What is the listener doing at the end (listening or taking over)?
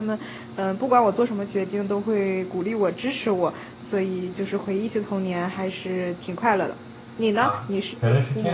taking over